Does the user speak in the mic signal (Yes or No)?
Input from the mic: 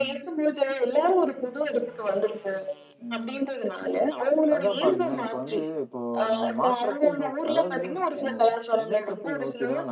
Yes